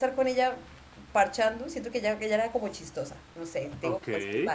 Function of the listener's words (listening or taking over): listening